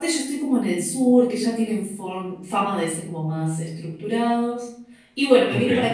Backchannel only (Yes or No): Yes